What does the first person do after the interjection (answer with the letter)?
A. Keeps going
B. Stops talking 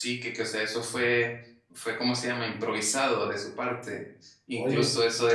A